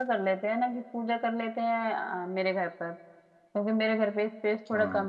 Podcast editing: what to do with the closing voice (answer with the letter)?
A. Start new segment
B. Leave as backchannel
B